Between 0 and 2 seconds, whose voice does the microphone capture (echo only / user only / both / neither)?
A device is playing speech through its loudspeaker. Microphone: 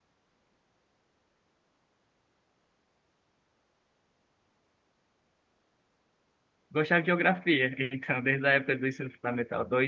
neither